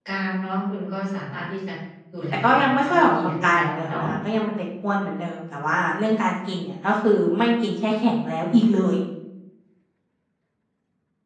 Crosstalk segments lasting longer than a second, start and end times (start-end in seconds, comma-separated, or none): 2.3-4.1